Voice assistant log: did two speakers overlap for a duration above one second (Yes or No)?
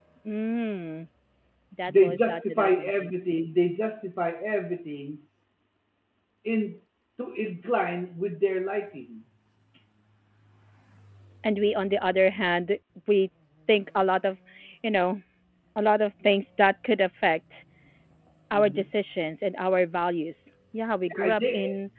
Yes